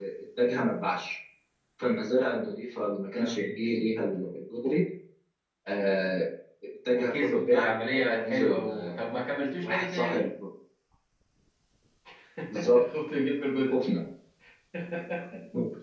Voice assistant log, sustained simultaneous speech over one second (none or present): present